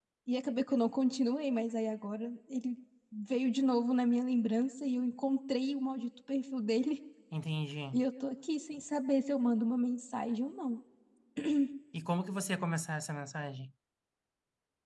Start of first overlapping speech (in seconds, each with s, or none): none